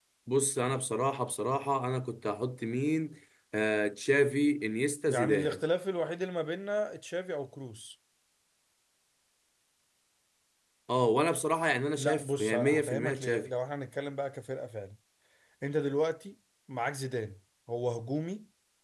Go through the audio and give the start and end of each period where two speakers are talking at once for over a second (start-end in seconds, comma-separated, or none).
12.0-13.5